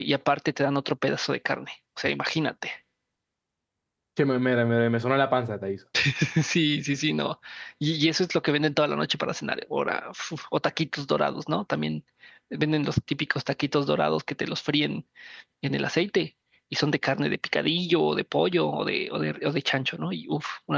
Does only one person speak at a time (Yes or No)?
Yes